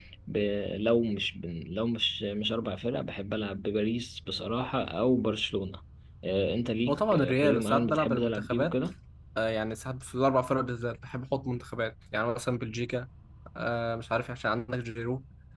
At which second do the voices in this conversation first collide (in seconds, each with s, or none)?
6.9 s